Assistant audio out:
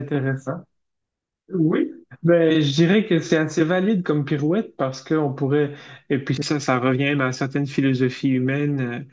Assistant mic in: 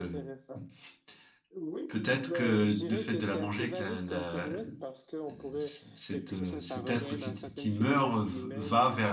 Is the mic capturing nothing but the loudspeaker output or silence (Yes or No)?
No